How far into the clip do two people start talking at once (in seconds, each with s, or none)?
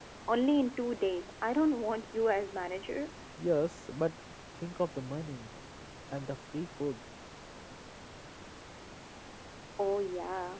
none